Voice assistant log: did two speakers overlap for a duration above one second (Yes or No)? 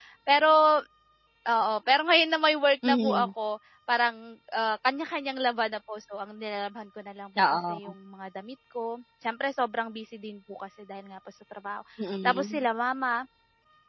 No